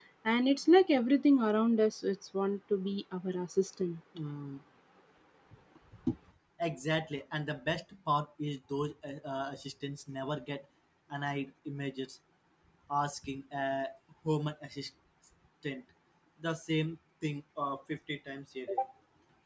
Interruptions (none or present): none